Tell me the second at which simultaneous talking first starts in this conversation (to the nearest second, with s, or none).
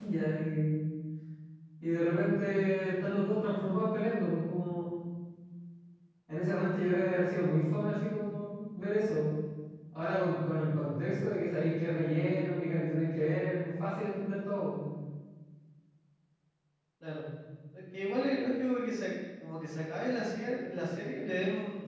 none